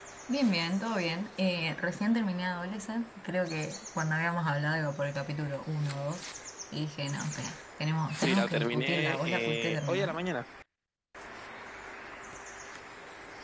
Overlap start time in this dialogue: 8.2 s

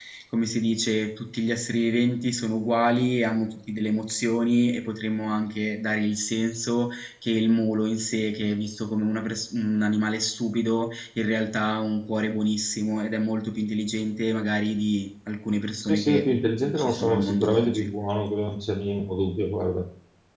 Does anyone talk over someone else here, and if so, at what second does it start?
15.8 s

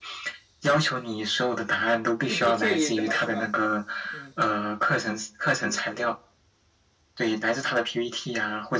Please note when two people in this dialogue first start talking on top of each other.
2.3 s

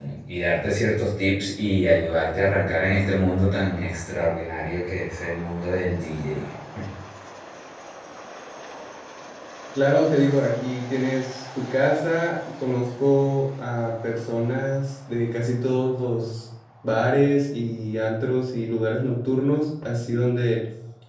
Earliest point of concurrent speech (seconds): none

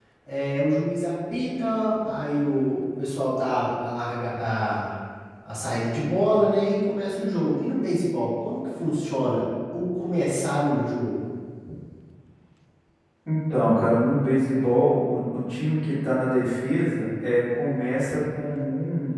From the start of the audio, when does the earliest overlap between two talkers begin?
none

